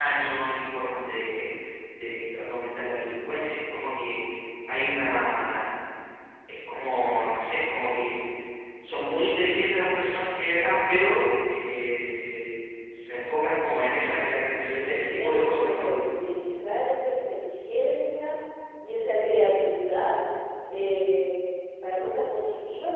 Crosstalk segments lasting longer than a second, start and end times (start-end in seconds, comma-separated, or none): 14.7-15.9